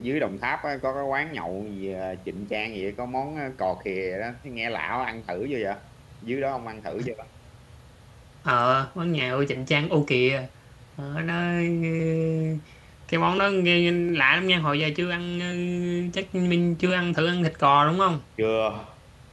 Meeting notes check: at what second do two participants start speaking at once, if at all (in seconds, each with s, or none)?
none